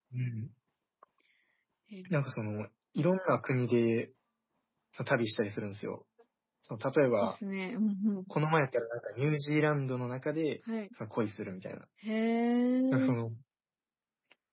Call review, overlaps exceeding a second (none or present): none